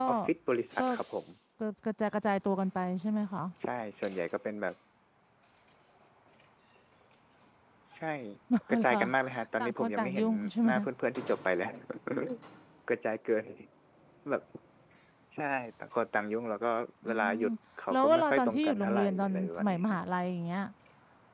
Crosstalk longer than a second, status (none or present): present